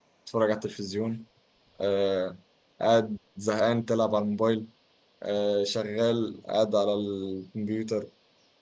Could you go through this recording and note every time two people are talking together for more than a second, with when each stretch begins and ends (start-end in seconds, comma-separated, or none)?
none